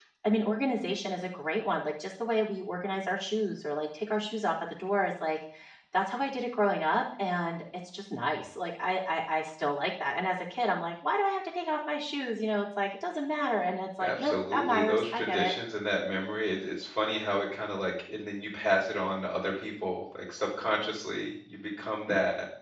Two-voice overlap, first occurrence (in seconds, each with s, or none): 14.0 s